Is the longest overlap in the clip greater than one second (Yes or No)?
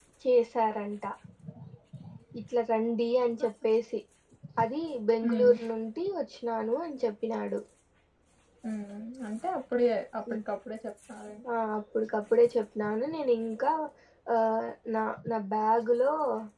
No